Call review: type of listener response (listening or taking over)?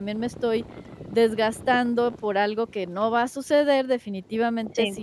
listening